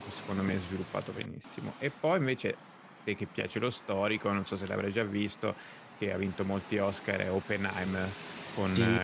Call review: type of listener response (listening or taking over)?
taking over